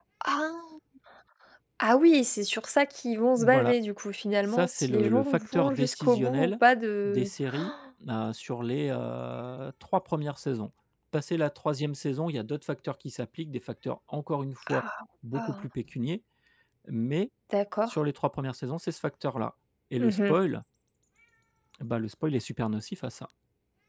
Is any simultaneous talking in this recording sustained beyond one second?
Yes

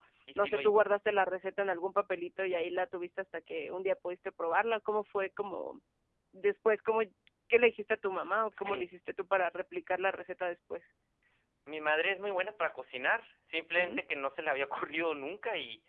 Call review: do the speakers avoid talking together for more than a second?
Yes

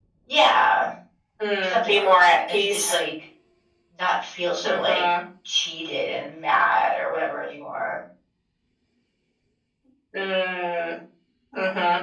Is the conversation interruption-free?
No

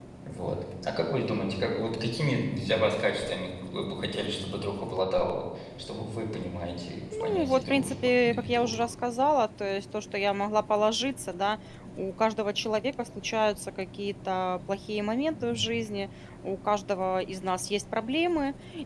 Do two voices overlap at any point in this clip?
Yes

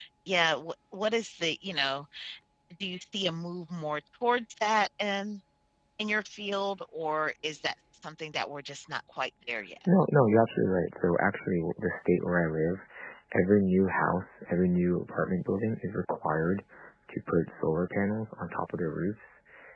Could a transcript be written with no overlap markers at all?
Yes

